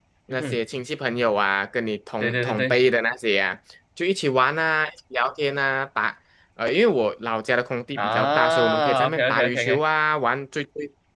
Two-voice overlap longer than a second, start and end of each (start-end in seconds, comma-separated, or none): 8.0-9.8